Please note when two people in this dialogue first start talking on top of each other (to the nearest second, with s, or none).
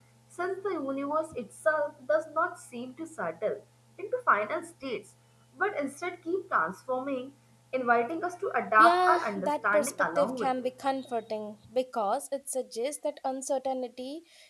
9 s